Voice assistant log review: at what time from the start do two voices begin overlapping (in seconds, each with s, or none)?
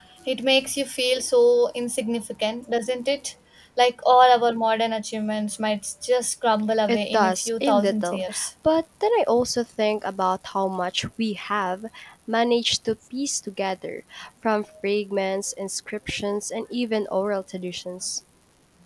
6.9 s